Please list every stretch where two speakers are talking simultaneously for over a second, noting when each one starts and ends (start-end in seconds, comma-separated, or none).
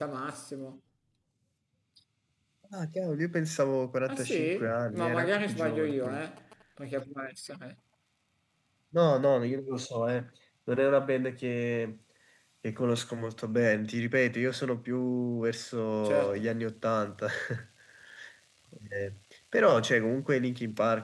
4.1-6.2